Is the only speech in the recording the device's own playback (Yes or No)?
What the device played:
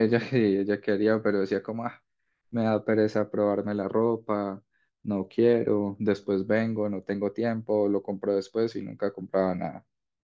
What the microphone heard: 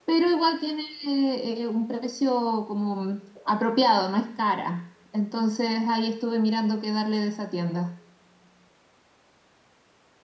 No